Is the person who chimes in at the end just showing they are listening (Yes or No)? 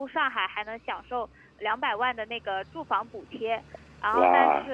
No